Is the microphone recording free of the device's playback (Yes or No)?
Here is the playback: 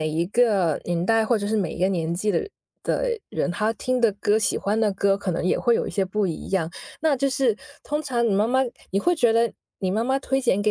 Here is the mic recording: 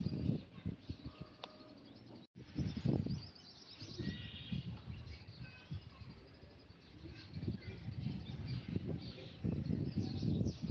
Yes